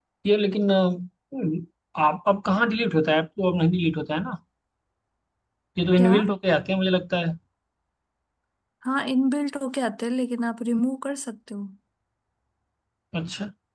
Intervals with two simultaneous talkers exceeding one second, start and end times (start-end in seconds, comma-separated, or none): none